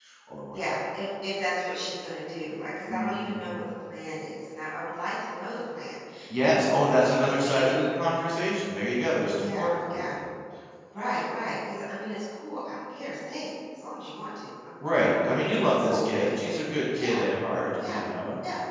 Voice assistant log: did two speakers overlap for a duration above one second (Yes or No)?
Yes